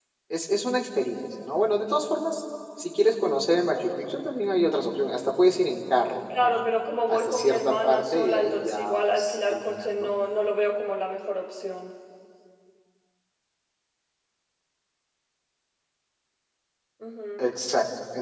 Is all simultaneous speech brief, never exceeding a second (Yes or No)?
No